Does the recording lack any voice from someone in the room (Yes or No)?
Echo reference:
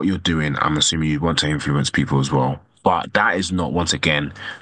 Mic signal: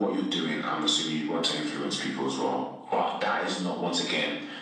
Yes